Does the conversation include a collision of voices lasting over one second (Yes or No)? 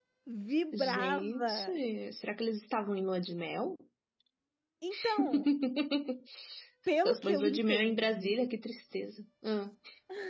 Yes